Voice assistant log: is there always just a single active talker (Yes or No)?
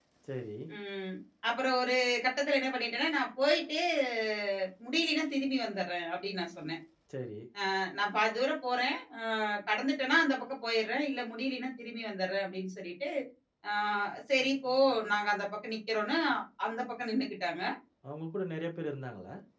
Yes